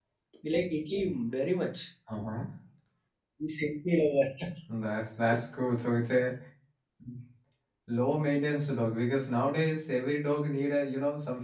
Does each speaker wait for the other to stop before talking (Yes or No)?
Yes